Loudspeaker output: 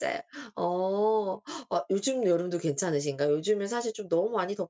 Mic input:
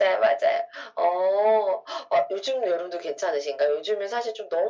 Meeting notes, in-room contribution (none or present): none